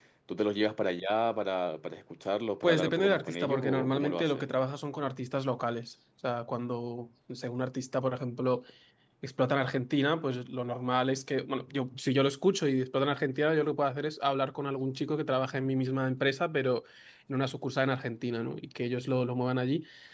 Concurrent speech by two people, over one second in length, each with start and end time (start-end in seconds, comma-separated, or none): 2.6-4.4